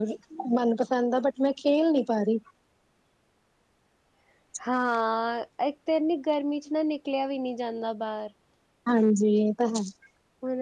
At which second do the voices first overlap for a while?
none

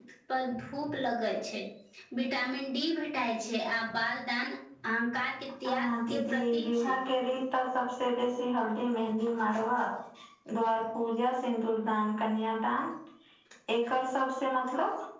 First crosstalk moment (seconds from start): 6 s

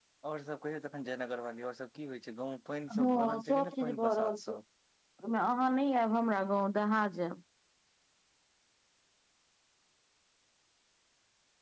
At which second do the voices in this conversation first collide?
3 s

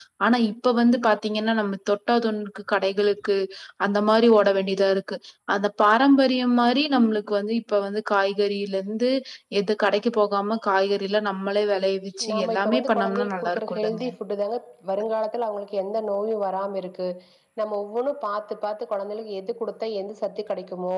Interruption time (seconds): 12 s

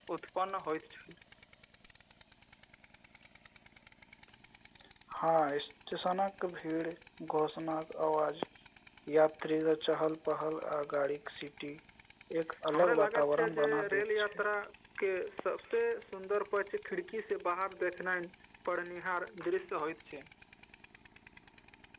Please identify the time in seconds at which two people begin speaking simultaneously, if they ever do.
13 s

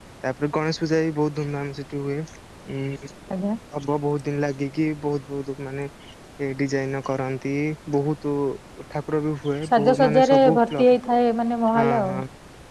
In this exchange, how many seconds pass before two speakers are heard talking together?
10 s

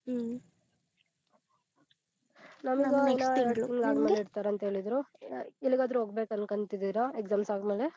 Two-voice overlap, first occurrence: 3 s

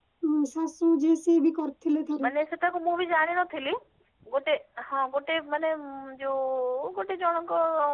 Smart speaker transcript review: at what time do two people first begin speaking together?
none

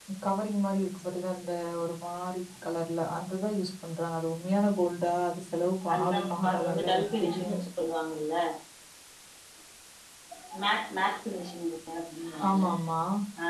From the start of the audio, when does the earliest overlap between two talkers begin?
6 s

